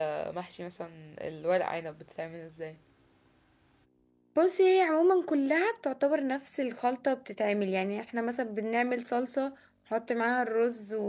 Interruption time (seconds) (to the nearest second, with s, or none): none